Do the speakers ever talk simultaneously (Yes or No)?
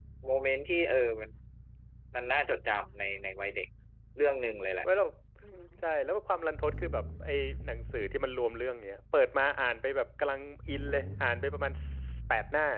No